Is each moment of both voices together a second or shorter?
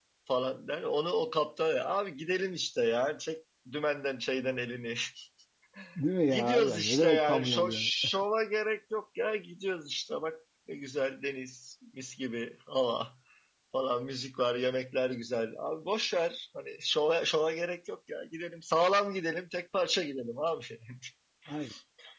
No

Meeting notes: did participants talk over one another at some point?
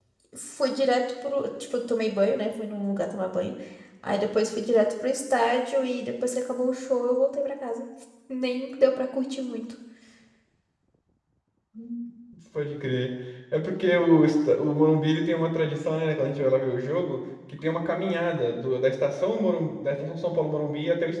No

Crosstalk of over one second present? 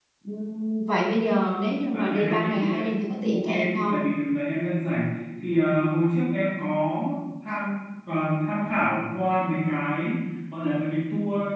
Yes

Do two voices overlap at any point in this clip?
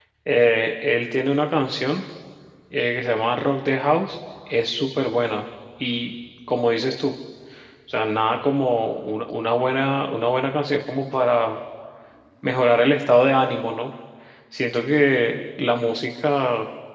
No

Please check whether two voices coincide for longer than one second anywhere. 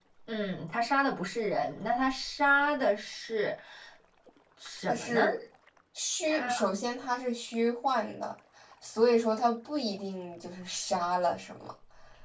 No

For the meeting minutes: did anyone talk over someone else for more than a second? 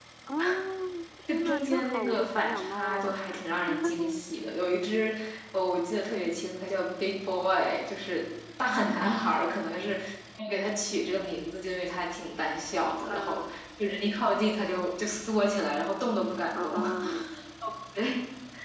Yes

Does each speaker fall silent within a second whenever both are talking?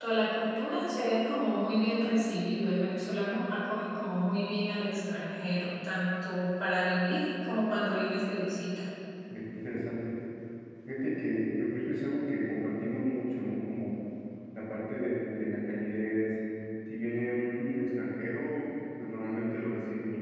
Yes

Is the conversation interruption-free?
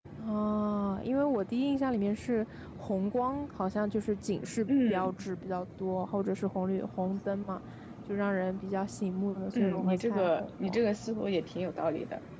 No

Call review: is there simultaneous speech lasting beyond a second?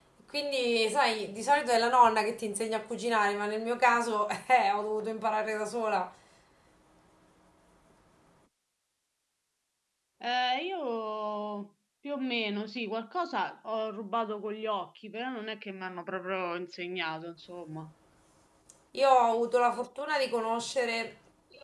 No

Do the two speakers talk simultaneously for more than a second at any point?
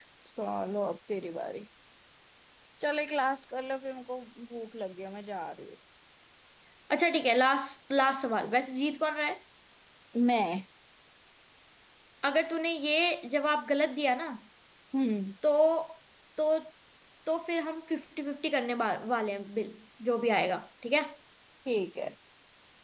No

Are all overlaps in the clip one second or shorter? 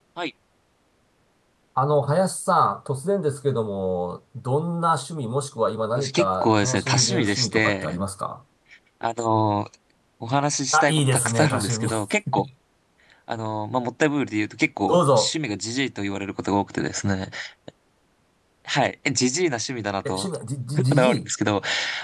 No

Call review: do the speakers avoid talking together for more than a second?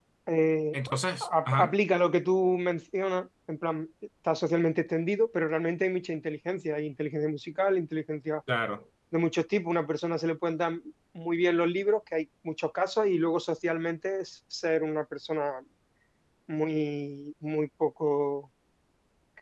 Yes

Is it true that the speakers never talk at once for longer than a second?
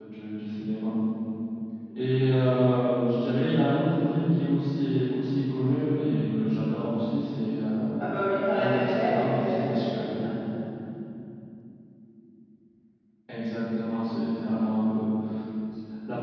No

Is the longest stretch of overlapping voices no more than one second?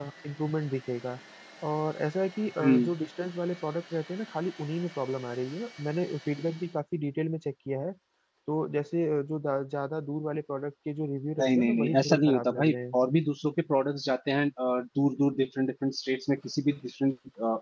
No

